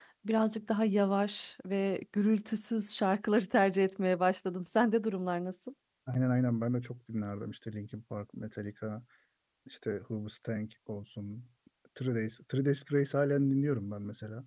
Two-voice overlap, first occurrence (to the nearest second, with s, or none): none